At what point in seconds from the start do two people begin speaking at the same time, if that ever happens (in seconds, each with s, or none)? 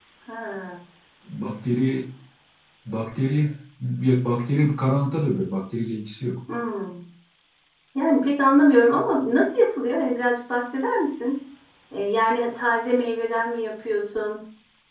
none